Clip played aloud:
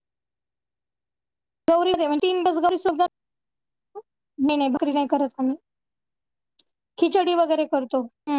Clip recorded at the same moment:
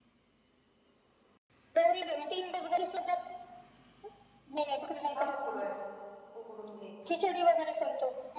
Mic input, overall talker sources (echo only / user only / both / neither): both